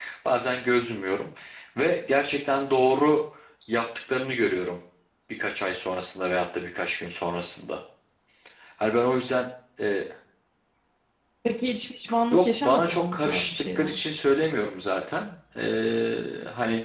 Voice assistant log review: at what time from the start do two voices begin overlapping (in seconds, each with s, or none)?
12.3 s